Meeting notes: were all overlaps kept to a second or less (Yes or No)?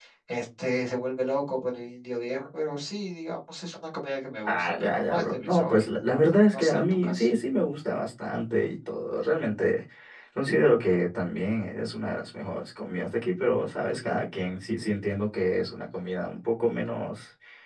No